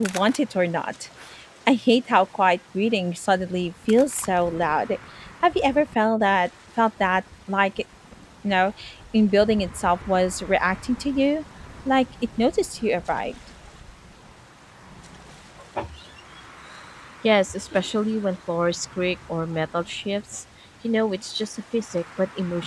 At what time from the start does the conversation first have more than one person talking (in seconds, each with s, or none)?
none